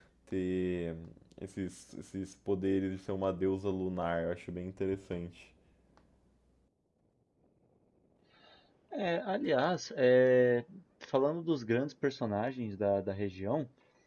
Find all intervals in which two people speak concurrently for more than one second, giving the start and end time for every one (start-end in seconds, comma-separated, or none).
none